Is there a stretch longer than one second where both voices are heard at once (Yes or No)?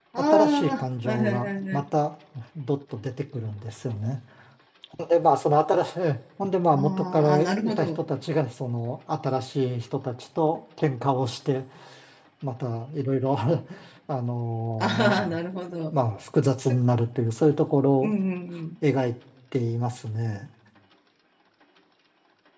Yes